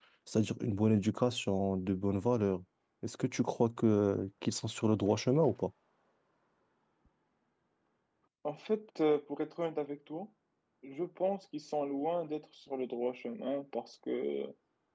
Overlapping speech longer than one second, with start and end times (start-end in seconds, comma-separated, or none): none